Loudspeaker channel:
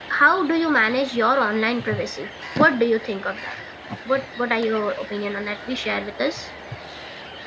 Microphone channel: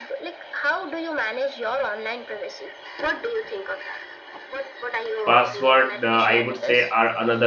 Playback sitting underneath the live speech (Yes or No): Yes